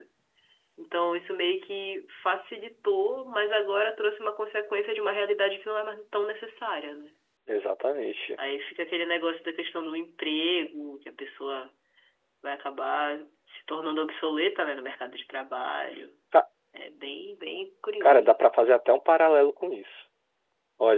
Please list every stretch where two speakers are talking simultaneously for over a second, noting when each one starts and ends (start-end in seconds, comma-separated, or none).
none